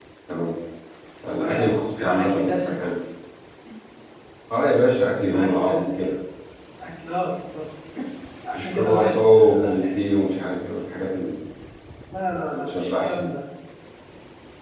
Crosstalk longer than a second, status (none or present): present